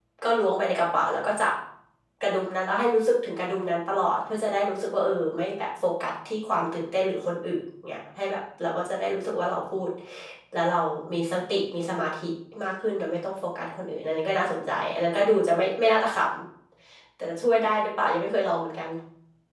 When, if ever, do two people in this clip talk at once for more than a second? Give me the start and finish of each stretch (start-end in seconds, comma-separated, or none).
none